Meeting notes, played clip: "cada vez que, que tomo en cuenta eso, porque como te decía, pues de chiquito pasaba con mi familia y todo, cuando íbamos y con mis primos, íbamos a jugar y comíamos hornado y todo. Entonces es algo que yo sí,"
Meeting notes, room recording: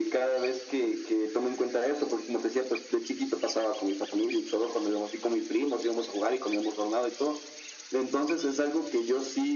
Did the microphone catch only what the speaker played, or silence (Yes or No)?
Yes